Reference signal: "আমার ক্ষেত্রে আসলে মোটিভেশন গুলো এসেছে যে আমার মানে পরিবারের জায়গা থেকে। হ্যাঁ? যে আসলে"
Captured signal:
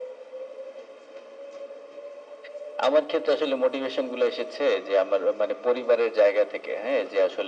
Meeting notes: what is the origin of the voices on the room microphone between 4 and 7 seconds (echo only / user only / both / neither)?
echo only